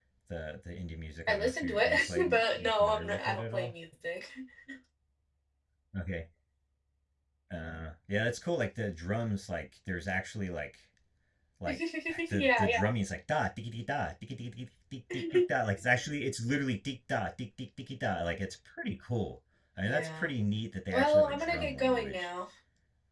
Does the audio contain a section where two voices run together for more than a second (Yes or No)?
Yes